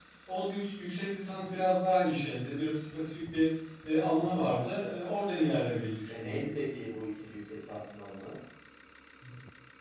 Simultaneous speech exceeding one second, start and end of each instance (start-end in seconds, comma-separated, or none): none